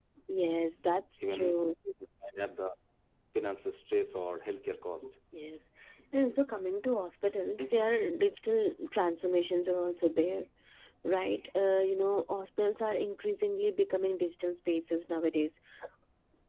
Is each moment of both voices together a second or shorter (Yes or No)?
Yes